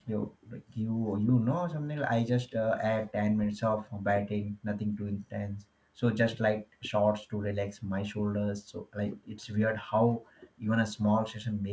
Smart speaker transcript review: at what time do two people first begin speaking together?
none

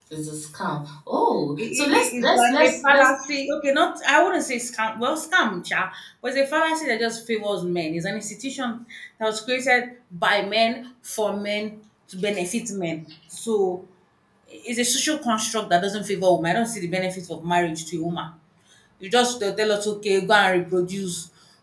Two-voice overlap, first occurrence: 1.6 s

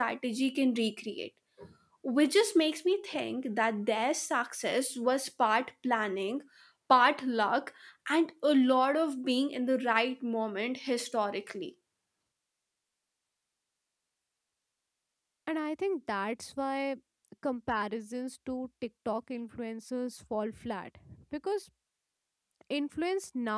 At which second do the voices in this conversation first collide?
none

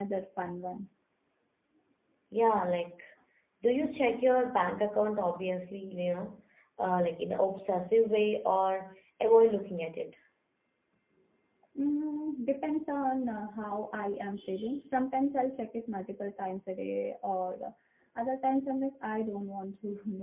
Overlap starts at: none

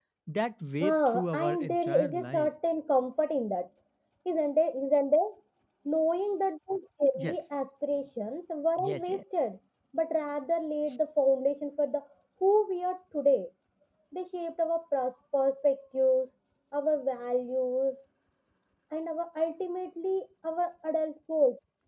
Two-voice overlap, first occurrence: 0.8 s

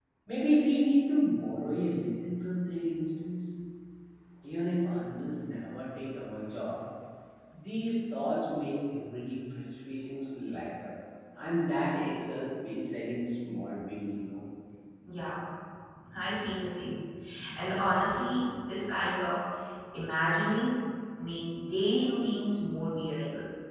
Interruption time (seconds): none

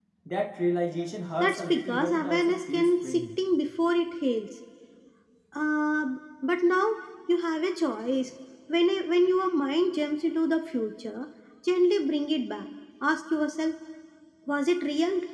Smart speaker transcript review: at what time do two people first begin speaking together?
1.4 s

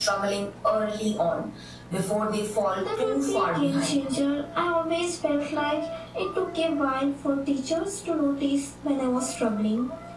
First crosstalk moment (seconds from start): 2.8 s

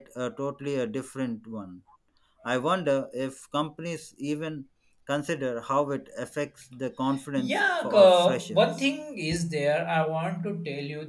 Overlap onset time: 7.4 s

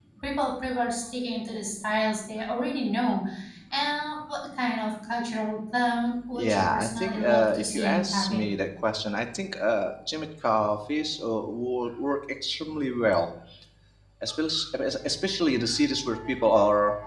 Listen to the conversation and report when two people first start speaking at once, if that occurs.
6.3 s

